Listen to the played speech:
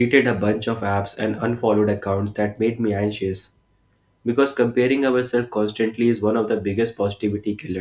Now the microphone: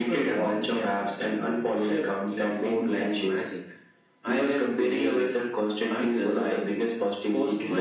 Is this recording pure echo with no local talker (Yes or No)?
No